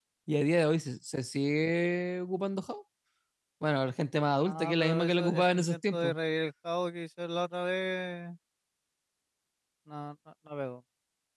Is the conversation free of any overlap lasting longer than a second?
No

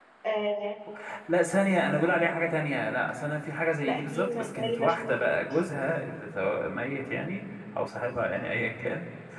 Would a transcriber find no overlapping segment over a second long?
No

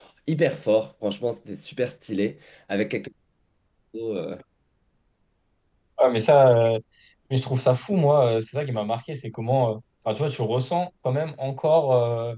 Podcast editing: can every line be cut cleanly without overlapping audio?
Yes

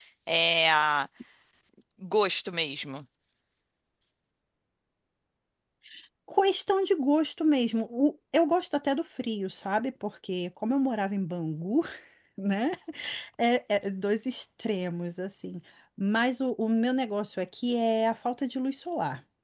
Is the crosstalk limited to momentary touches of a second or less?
Yes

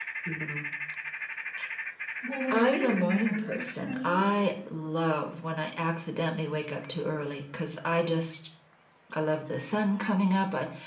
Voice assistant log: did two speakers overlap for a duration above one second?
Yes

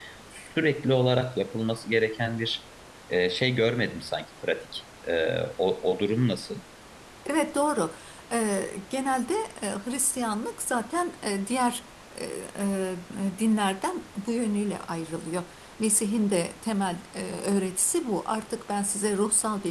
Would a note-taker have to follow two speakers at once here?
No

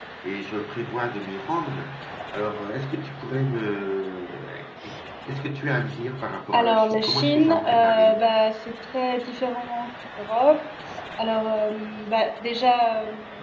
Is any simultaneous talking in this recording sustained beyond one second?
Yes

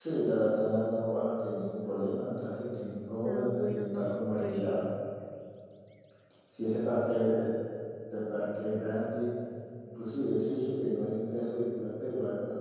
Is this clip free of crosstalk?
No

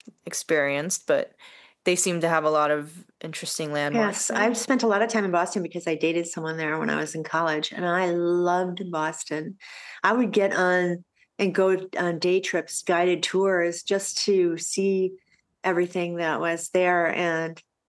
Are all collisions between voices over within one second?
Yes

